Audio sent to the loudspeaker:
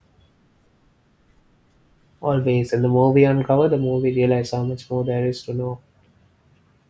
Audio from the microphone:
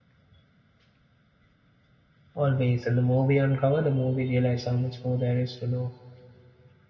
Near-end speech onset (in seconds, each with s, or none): none